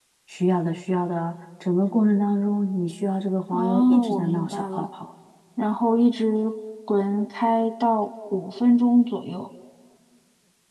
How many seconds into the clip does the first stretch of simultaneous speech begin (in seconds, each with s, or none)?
3.5 s